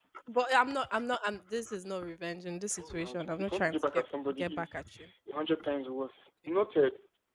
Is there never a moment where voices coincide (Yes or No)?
No